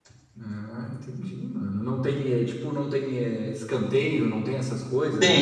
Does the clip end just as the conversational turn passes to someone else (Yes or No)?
Yes